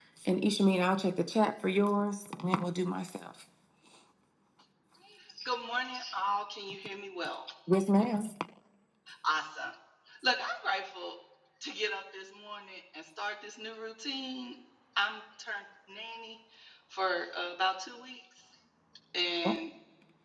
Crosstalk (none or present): none